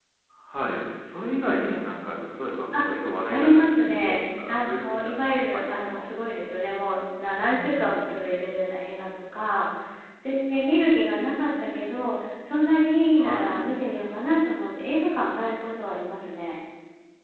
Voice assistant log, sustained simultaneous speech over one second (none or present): present